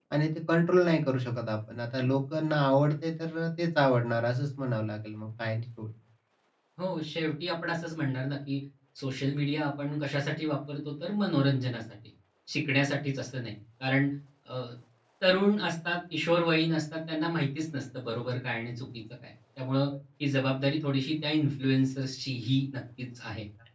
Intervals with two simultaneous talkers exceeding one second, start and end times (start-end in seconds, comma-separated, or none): none